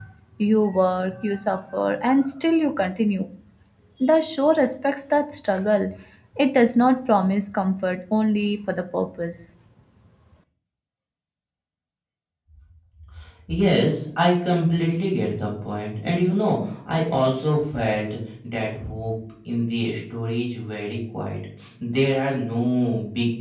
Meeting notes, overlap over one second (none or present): none